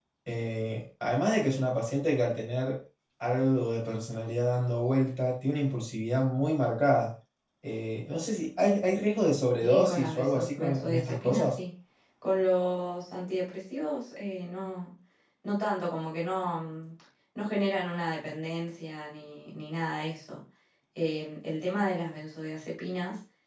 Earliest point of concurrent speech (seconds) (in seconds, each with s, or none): 9.6 s